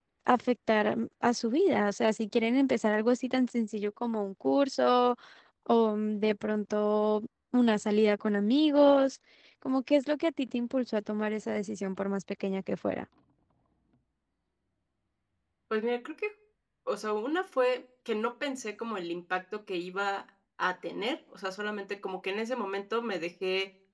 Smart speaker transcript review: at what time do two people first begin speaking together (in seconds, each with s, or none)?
none